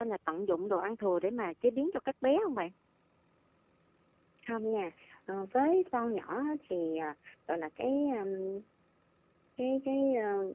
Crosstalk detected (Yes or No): No